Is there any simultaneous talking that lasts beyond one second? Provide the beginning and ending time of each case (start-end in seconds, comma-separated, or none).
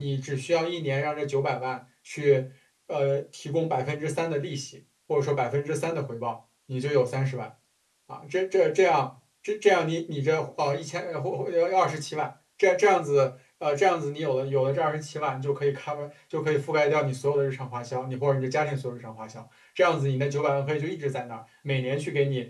none